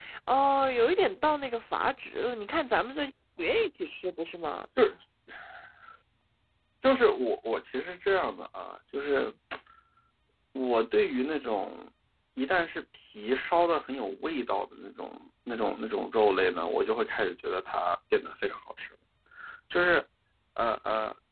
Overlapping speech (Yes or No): No